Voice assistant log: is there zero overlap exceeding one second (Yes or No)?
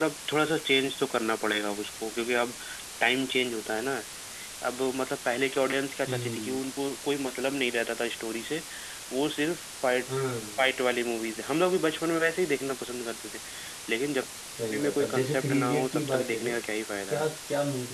No